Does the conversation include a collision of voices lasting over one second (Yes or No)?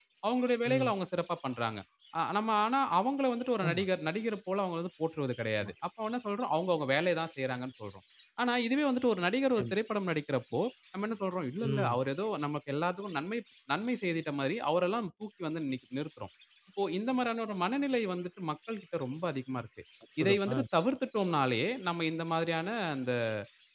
No